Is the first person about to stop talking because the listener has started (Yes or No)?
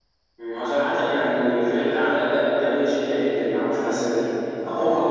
No